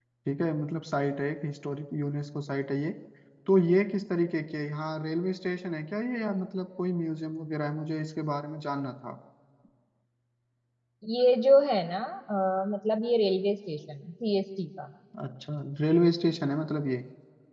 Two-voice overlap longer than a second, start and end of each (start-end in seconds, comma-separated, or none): none